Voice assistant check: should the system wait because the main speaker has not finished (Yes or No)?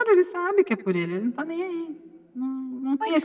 Yes